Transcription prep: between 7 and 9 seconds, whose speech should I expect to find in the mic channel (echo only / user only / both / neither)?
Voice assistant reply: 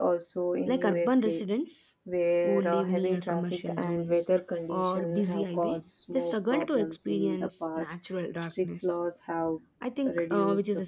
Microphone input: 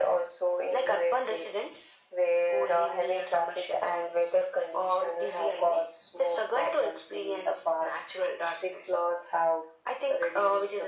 echo only